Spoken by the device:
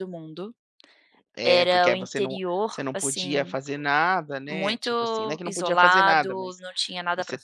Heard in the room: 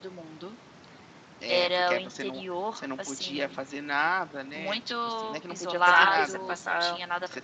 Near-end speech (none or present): present